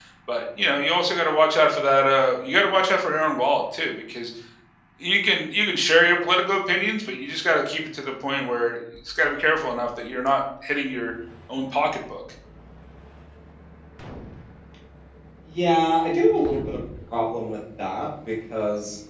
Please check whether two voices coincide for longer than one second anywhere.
No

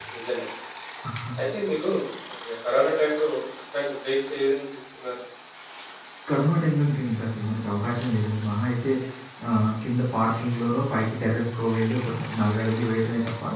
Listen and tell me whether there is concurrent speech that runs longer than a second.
No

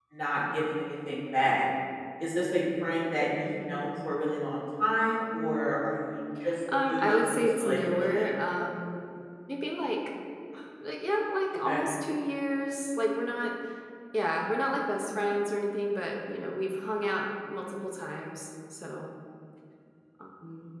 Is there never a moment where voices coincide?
No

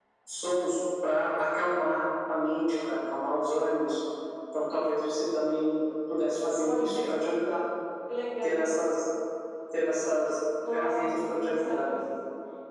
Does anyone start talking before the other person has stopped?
Yes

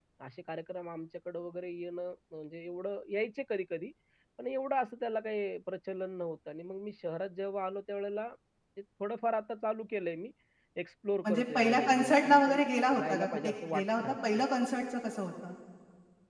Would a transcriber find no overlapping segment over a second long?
No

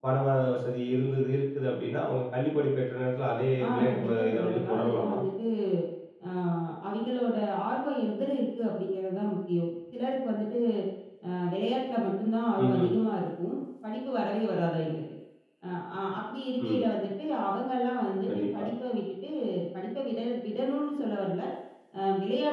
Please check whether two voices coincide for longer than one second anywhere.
Yes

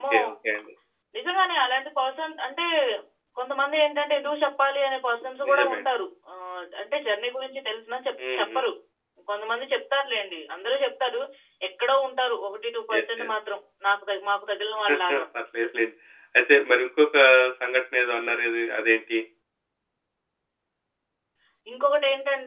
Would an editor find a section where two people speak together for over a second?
No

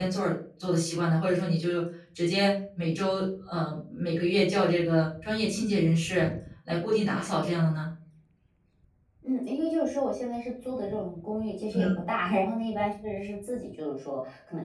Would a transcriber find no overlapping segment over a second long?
Yes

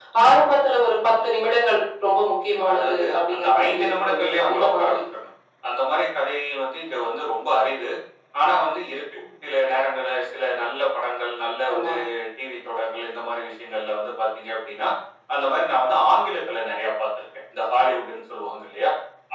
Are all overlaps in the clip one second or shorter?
No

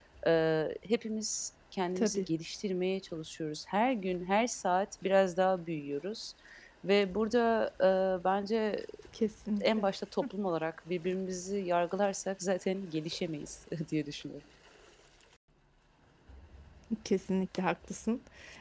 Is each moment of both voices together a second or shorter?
Yes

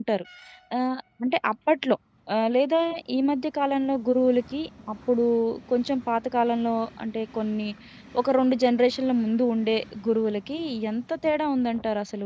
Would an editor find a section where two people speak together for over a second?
No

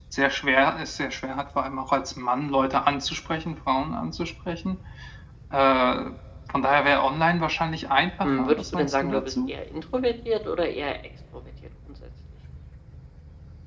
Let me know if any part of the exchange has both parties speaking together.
Yes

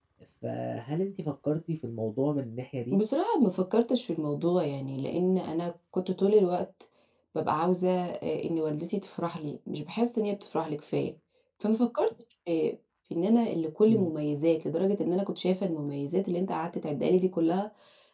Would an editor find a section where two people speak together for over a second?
No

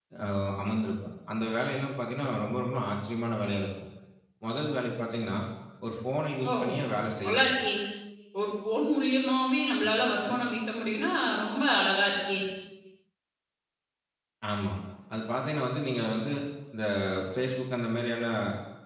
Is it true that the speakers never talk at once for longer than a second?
Yes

